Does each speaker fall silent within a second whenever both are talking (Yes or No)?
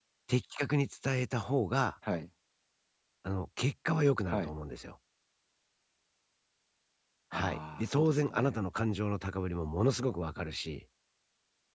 No